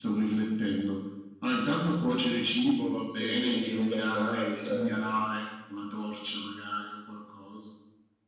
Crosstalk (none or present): present